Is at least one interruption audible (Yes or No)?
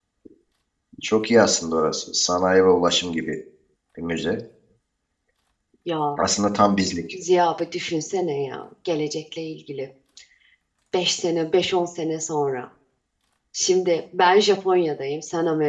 No